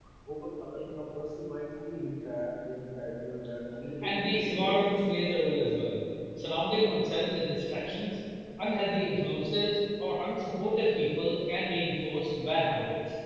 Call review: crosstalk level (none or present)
present